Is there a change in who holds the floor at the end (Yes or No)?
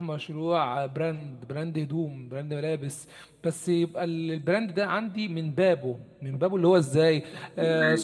No